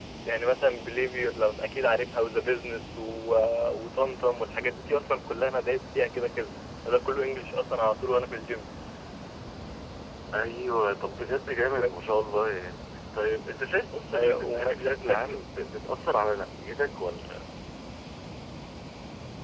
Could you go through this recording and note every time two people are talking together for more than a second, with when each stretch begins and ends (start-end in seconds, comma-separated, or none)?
14.1-15.4